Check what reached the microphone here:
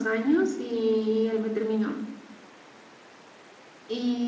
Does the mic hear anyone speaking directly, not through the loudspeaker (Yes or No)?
No